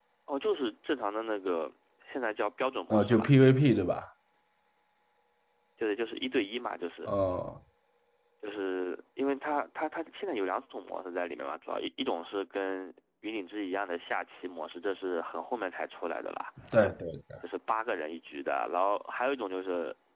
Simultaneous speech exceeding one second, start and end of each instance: none

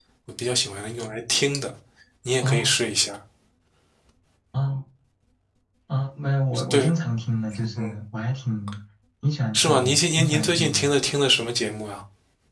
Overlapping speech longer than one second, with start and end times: 9.5-10.9

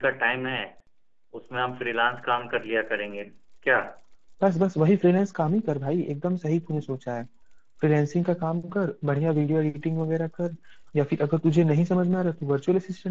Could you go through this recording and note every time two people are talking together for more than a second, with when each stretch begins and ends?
none

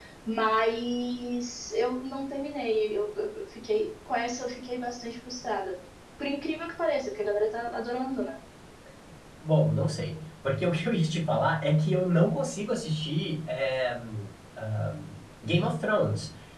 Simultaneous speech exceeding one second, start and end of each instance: none

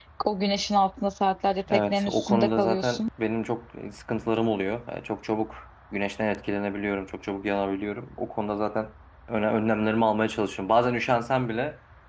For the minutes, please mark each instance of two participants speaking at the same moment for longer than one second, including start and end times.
1.7-3.0

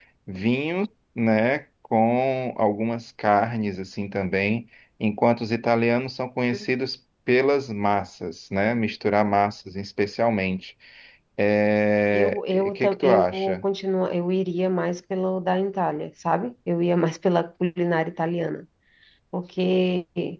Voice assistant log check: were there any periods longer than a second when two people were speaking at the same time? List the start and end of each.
12.1-13.6

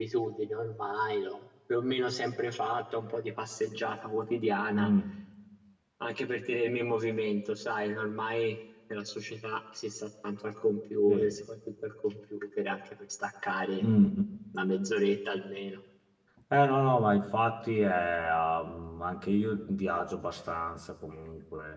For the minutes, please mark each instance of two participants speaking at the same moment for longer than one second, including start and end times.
none

